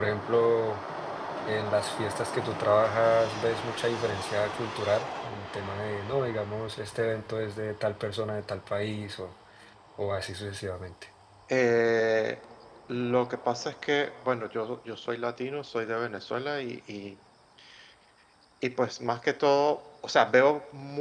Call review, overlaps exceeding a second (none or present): none